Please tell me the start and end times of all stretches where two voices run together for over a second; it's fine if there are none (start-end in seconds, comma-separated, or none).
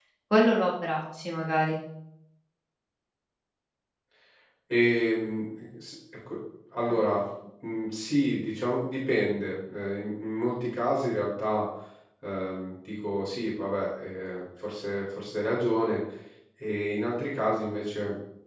none